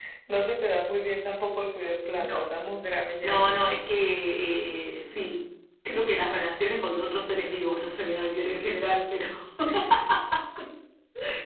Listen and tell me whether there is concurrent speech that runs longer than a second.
No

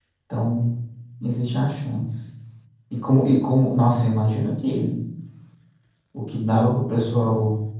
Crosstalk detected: No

